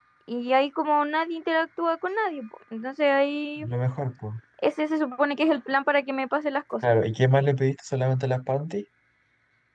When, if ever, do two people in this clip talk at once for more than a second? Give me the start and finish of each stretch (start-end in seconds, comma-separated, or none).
none